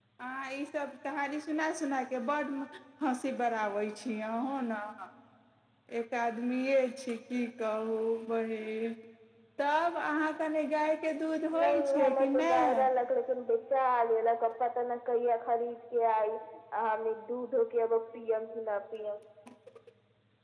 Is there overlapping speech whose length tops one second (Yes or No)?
Yes